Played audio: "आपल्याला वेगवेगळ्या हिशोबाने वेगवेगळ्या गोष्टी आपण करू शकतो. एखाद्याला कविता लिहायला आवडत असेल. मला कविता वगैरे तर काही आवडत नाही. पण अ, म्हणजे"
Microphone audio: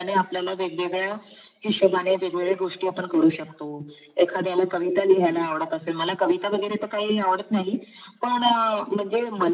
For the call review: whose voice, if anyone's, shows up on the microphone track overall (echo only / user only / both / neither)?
echo only